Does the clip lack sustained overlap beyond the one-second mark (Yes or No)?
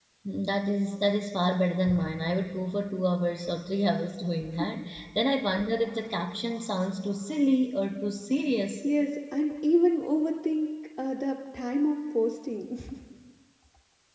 Yes